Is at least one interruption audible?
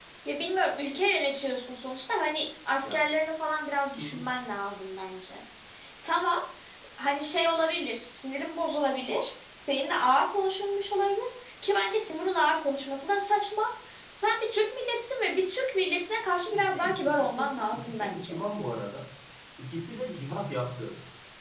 Yes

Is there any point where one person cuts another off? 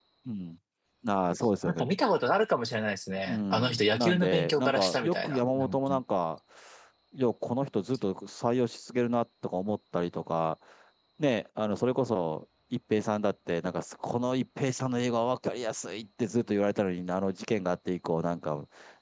Yes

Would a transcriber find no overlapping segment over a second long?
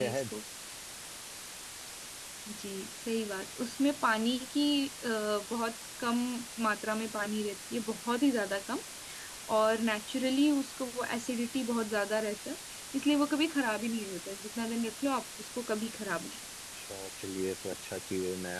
Yes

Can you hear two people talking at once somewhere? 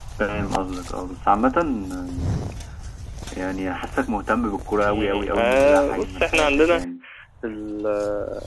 Yes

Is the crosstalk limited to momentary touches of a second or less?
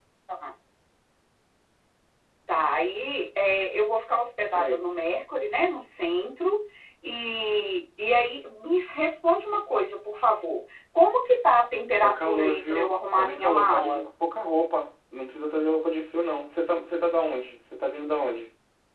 No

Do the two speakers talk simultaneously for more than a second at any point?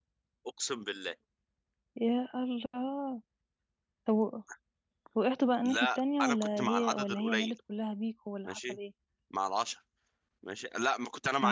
Yes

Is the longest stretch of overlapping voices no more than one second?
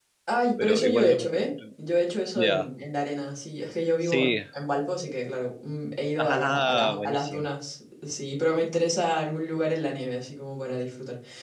No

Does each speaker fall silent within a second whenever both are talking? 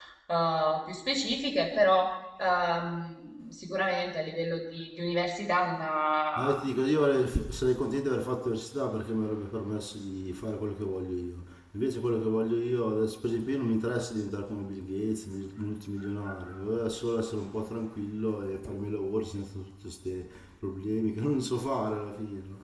Yes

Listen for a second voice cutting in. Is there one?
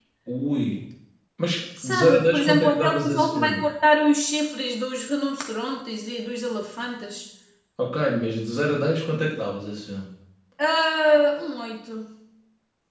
Yes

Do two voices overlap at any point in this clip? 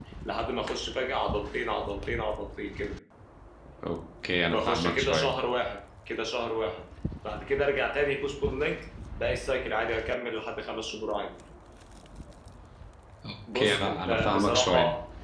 Yes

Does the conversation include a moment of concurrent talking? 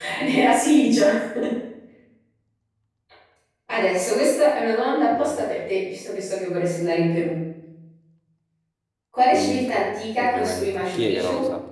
Yes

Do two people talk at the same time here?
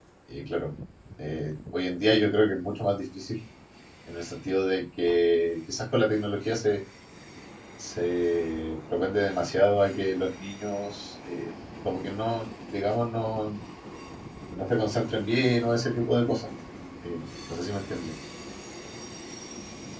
No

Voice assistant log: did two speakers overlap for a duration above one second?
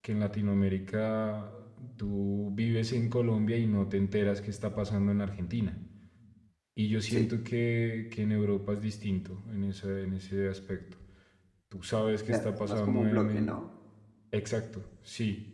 Yes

